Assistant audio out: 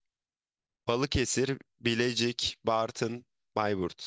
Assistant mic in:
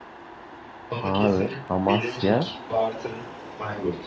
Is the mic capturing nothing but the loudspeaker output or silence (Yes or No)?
No